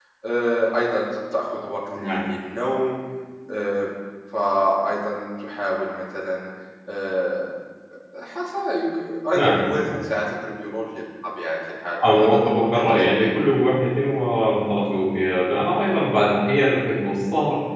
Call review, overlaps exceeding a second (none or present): present